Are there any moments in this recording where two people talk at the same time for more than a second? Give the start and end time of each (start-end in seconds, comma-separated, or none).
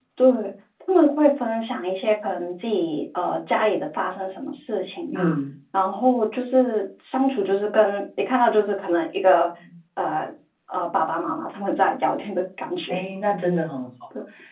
none